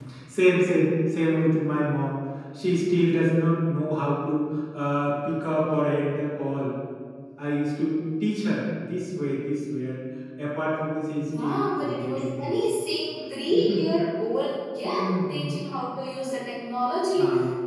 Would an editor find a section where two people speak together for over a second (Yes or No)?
Yes